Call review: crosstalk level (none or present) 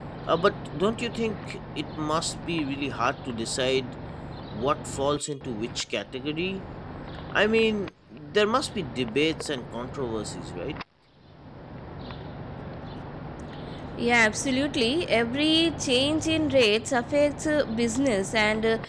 none